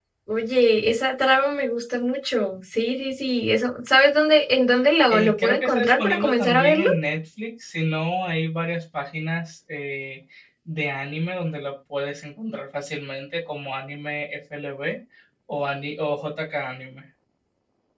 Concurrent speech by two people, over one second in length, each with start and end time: 5.1-6.9

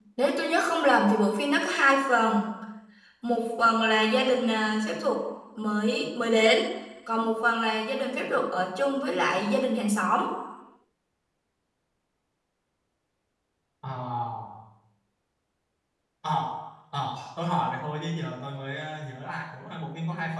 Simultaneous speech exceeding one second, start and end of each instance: none

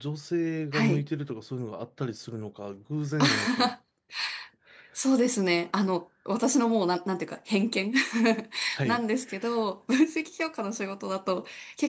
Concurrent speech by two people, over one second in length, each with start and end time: none

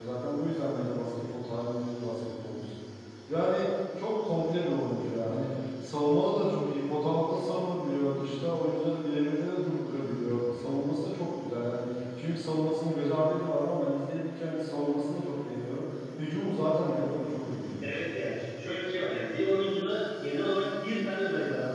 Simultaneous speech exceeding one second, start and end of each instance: none

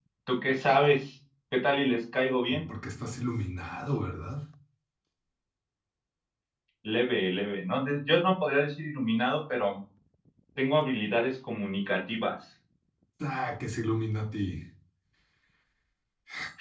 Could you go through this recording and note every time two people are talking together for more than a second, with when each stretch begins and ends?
none

